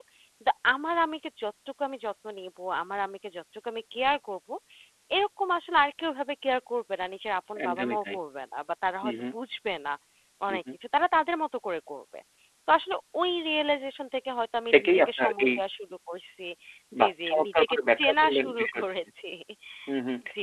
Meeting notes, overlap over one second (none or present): present